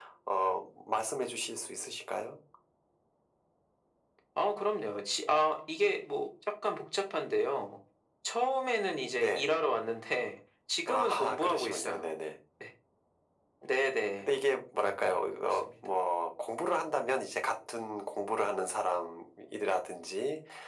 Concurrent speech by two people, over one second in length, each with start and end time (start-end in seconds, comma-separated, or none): 10.9-12.1